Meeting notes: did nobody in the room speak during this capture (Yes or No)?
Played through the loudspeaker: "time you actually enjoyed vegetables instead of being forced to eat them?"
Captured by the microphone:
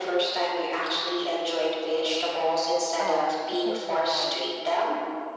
No